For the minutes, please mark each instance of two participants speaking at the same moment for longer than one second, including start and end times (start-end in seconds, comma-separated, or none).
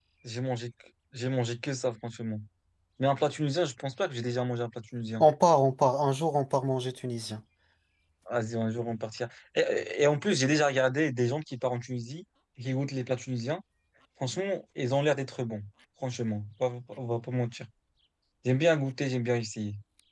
none